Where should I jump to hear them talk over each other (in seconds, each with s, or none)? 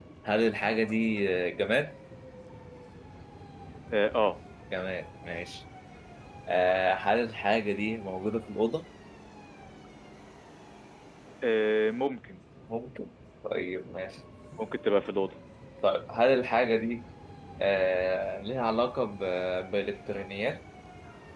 none